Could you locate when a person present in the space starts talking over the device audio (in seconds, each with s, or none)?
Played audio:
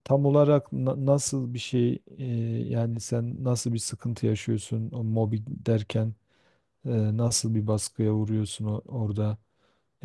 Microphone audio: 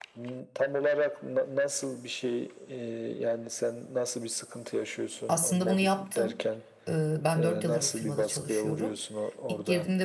5.3 s